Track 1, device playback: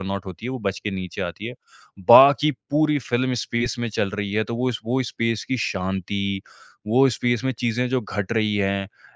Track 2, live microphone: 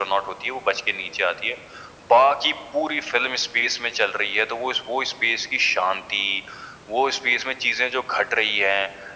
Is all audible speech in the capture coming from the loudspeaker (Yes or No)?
Yes